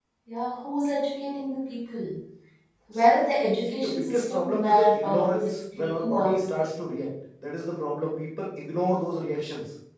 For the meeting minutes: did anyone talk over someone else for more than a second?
Yes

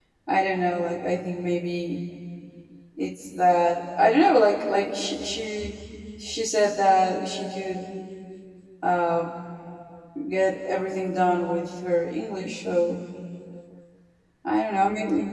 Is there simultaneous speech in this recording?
No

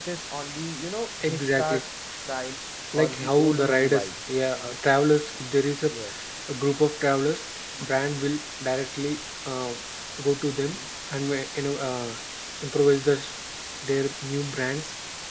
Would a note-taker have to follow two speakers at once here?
Yes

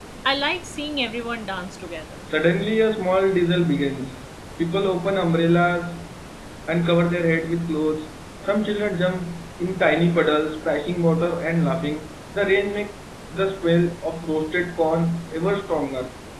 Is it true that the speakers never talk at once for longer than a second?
Yes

